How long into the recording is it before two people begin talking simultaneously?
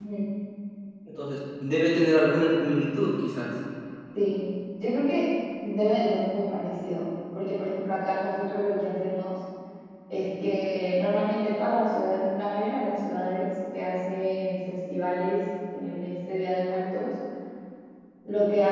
none

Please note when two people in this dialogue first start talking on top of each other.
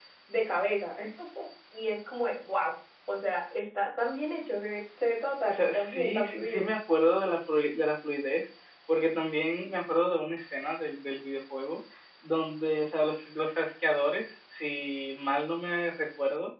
5.5 s

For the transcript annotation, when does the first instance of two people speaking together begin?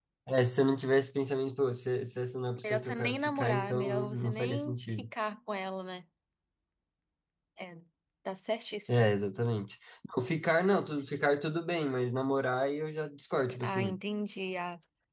2.6 s

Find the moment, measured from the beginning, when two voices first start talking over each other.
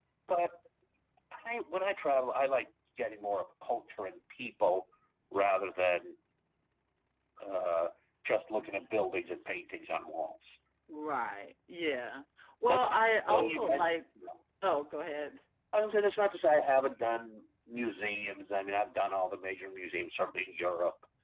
12.6 s

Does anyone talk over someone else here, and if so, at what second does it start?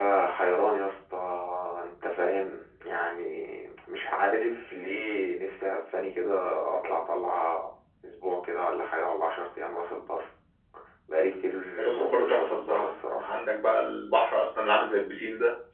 11.8 s

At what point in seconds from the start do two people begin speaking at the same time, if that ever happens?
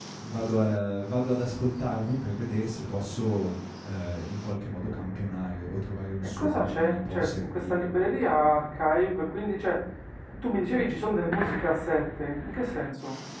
6.2 s

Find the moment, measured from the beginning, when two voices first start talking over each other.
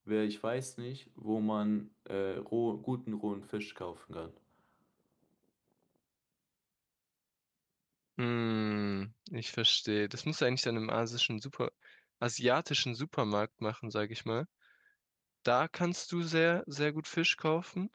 none

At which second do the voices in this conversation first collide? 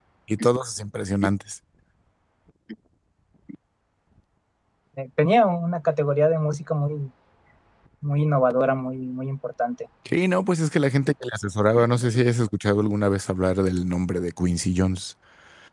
none

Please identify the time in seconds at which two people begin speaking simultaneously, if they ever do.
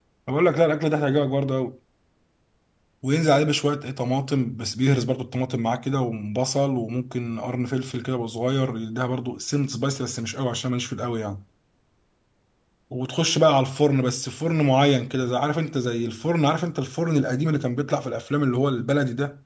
none

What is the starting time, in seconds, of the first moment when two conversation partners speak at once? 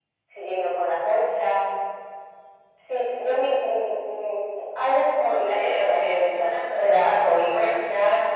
5.2 s

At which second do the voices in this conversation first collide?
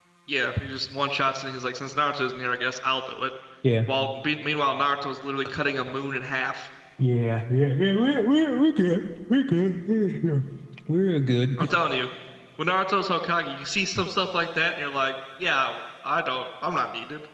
none

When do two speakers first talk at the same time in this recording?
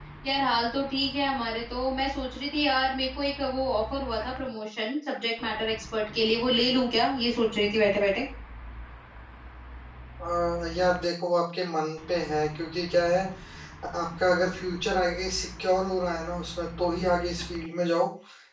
none

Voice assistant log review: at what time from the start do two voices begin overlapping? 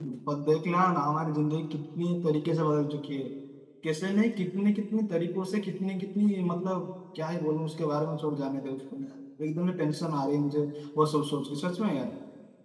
none

